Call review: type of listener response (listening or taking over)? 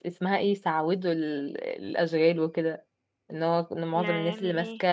listening